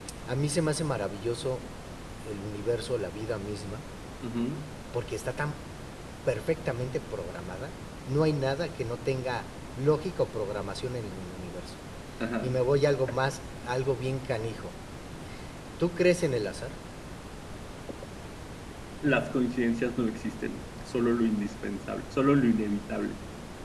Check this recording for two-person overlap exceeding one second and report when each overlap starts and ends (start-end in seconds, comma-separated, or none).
none